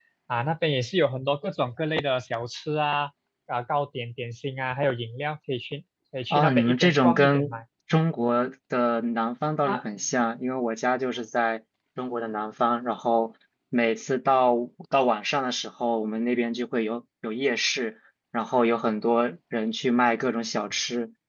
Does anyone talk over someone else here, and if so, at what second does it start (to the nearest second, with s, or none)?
6 s